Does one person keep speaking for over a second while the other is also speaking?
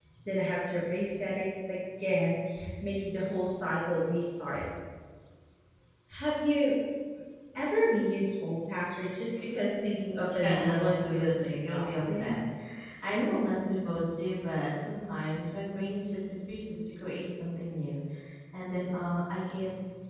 Yes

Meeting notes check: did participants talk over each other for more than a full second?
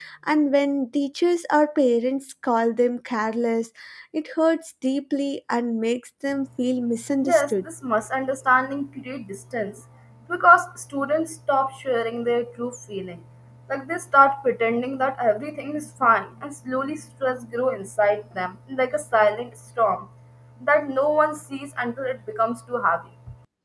No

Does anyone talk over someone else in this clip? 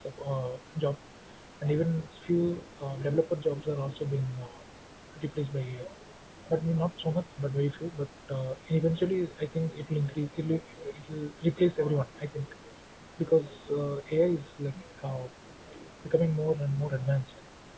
No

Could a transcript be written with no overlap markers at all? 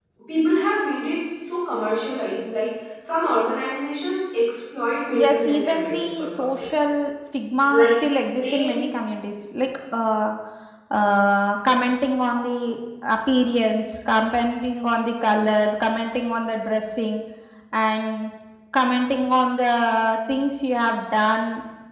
No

